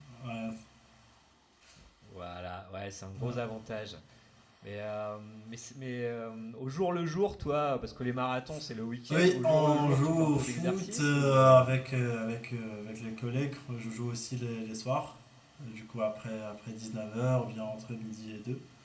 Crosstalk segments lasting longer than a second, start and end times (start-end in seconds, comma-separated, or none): 9.1-11.7